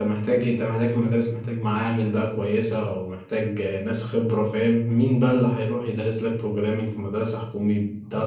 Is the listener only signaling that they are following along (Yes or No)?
No